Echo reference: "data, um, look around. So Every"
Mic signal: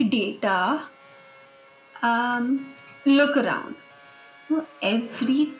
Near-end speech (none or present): none